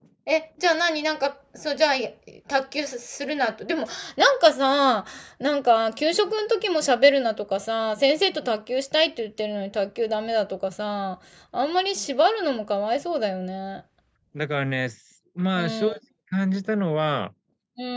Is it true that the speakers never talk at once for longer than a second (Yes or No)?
Yes